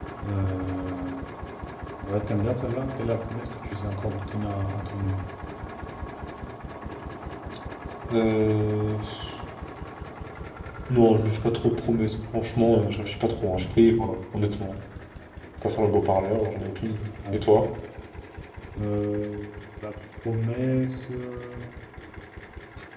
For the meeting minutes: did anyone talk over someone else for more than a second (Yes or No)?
No